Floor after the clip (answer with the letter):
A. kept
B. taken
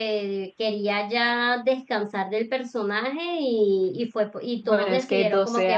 B